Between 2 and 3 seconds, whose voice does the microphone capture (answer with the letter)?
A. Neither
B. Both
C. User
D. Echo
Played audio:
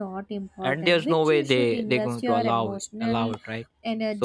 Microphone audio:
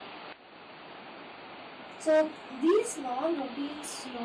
C